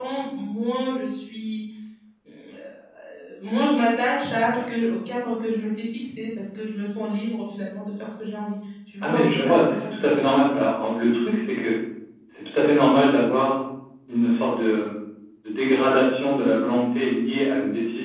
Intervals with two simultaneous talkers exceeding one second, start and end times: 9.0-10.4

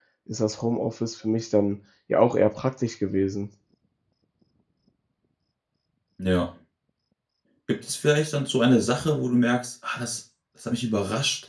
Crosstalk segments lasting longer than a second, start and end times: none

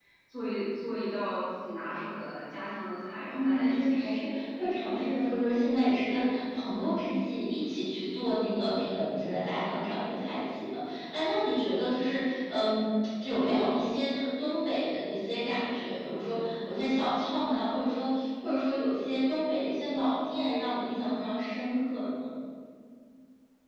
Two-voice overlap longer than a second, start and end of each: 3.2-5.1

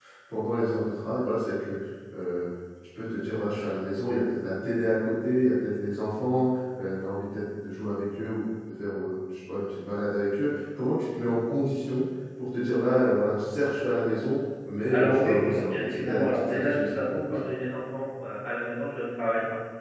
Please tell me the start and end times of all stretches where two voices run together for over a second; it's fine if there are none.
14.9-17.5

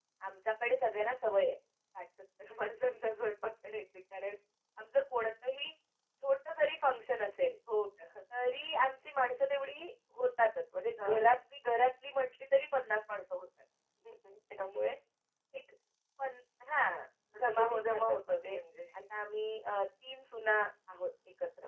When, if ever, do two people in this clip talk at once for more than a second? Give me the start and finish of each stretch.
17.3-18.6

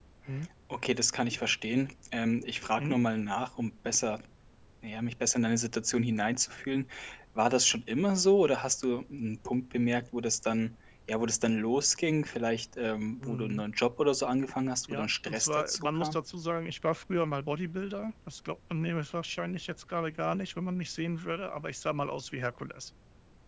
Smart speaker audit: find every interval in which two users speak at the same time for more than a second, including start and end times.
14.9-16.2

